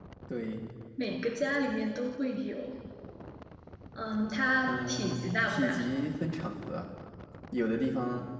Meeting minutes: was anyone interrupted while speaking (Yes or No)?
Yes